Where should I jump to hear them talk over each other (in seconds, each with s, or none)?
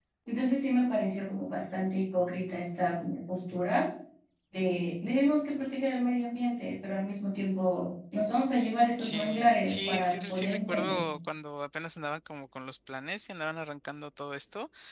9.0 s